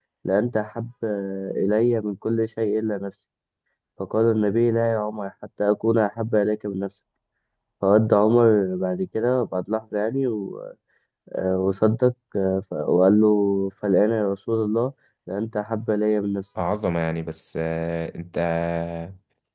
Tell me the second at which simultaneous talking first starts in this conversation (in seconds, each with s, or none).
none